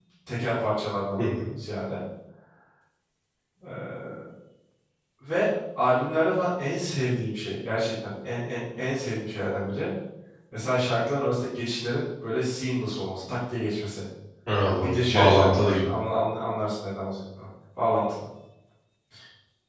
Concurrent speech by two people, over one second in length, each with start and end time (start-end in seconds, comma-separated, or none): 14.6-15.9